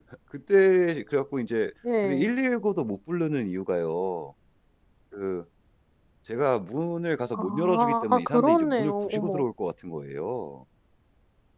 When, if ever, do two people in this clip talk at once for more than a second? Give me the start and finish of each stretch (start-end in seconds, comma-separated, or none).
7.3-9.4